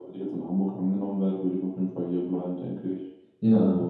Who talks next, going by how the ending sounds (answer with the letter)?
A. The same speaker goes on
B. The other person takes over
B